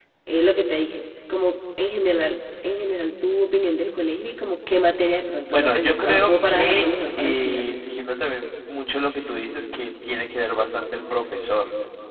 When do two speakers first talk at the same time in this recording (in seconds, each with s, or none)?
5.5 s